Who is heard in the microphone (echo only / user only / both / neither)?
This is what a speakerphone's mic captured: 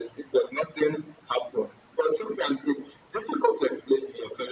echo only